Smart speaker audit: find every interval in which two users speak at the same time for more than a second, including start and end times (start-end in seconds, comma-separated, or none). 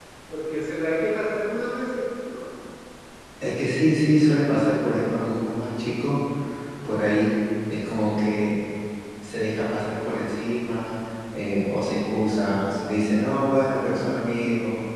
none